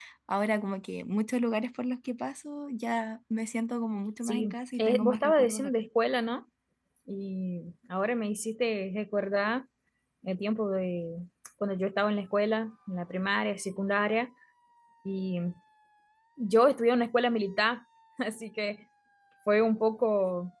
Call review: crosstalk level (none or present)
present